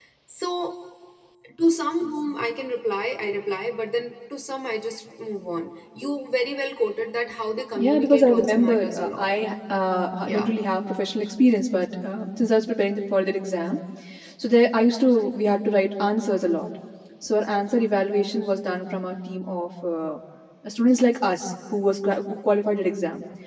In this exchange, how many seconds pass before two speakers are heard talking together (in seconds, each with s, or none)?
7.8 s